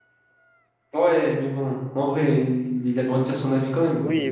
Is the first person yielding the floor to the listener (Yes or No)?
Yes